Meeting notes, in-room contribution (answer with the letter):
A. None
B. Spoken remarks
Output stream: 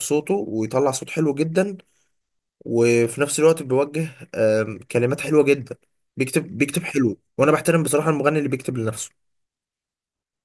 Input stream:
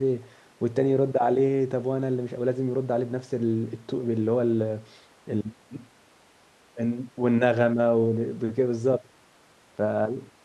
B